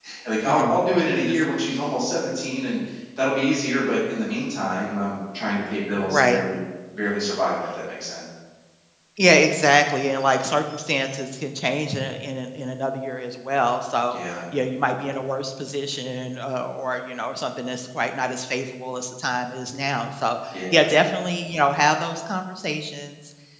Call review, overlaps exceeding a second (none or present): none